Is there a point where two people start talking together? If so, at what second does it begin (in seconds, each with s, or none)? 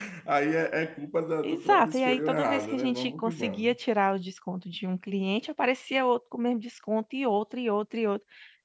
1.4 s